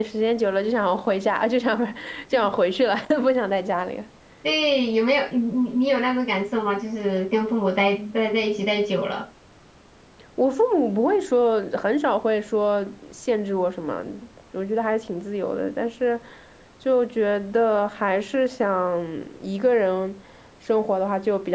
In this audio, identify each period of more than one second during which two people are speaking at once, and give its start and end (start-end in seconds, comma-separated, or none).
none